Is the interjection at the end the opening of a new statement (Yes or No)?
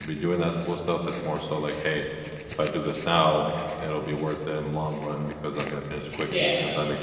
Yes